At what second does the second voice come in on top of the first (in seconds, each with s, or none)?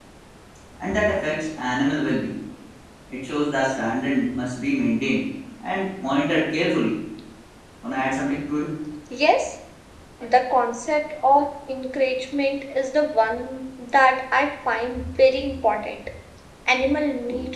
none